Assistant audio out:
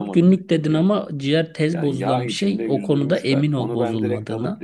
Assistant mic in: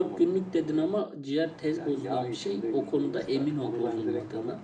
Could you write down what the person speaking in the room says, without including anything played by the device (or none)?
none